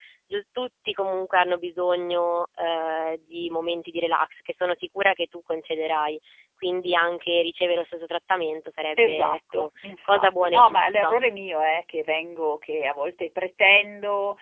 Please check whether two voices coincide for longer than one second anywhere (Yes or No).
Yes